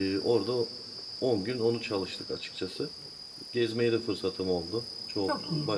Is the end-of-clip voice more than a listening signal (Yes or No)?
No